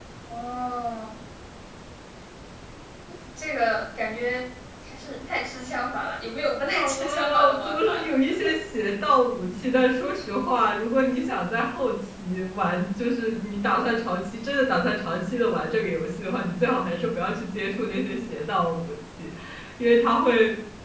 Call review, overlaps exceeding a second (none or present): present